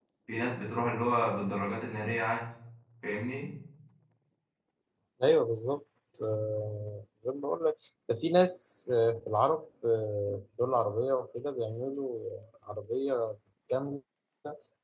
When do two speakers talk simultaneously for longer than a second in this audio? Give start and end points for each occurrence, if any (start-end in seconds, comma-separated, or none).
none